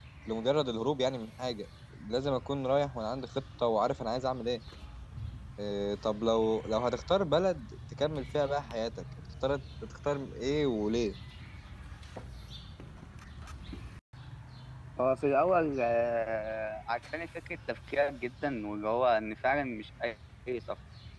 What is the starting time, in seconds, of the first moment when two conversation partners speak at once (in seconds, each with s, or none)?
none